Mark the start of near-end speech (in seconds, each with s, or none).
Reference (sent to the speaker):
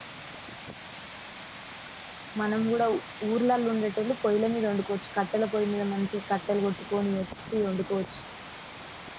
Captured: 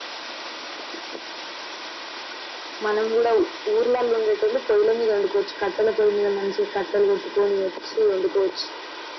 none